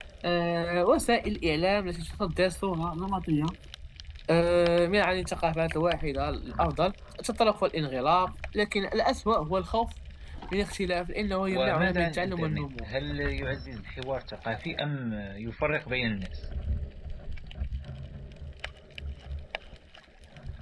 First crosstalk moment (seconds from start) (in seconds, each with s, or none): 11.5 s